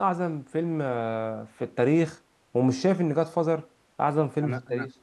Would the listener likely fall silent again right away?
No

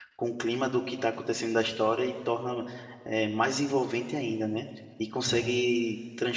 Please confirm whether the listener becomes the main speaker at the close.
No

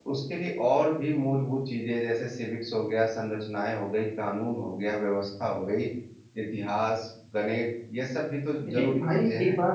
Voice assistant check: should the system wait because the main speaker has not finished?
No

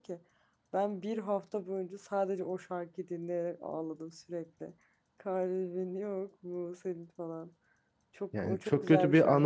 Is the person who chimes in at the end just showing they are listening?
No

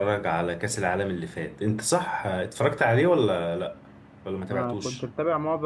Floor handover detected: Yes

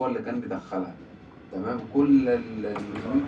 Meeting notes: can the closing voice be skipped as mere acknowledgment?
Yes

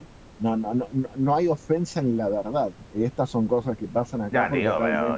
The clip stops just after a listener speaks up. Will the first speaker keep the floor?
No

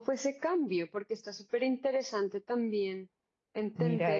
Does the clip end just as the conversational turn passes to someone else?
Yes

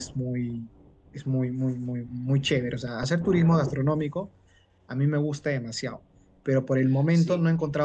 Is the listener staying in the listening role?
Yes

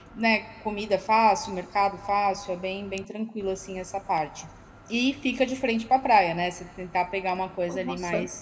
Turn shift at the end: No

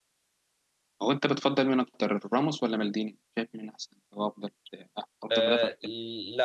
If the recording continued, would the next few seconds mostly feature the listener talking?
Yes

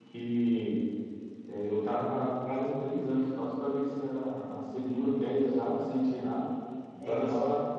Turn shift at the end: No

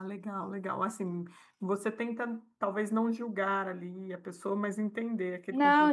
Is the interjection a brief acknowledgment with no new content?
No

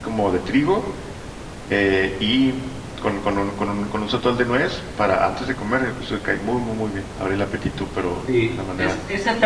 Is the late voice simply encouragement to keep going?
No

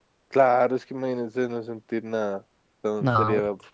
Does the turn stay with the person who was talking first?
Yes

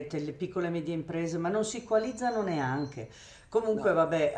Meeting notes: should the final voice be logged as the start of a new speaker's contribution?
No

